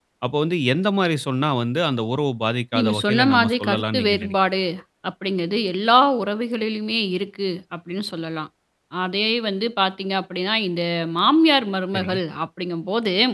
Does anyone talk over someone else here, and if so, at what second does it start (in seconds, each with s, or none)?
2.7 s